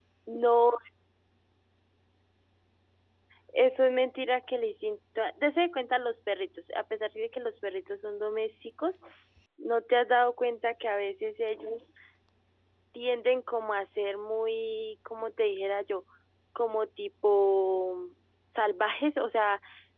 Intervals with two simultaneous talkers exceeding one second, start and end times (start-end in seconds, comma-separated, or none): none